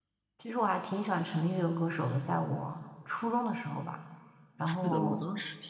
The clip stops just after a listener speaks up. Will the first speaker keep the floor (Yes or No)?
No